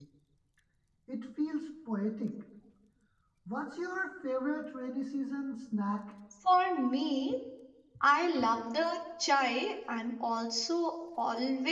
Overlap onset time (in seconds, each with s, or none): none